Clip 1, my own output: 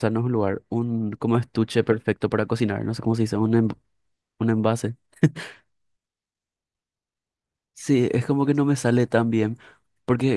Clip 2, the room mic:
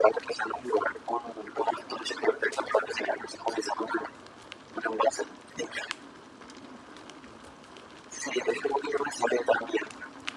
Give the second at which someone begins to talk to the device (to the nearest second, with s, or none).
none